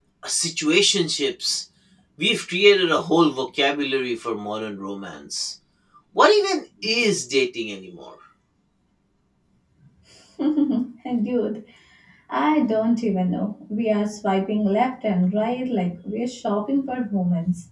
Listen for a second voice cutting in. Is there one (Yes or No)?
No